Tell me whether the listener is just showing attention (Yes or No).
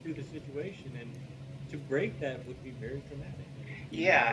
No